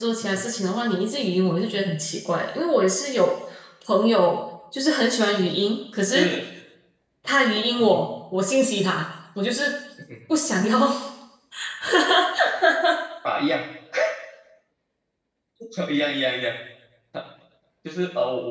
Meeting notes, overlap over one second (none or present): none